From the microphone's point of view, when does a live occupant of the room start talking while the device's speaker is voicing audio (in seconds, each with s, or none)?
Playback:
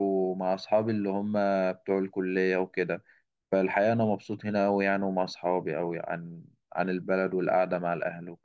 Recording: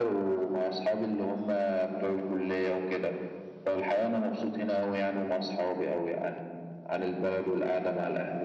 none